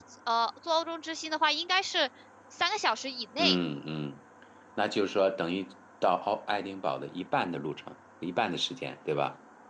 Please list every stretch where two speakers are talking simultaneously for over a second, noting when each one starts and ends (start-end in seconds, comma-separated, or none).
none